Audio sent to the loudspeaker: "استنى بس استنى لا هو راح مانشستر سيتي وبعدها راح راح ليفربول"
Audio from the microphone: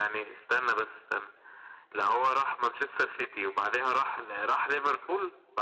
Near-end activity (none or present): none